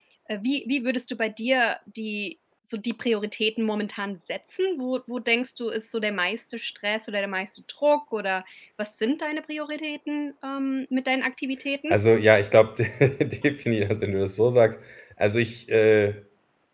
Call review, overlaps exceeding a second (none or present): none